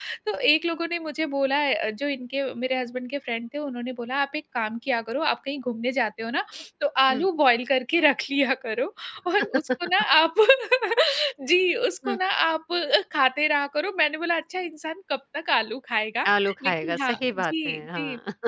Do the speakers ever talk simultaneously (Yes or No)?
Yes